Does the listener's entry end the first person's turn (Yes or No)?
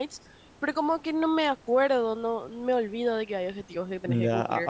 Yes